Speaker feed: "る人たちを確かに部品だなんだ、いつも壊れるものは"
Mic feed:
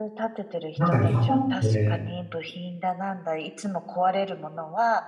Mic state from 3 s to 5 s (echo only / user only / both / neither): echo only